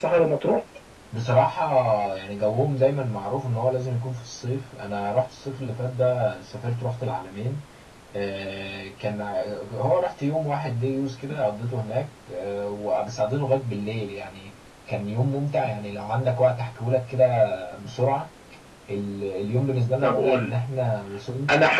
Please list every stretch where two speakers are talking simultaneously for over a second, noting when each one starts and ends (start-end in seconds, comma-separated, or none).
none